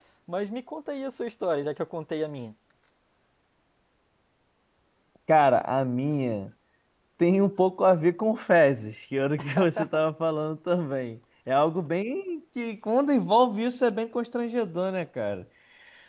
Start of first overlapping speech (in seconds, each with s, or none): none